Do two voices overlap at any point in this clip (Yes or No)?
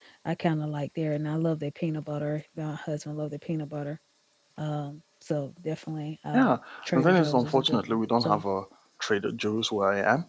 Yes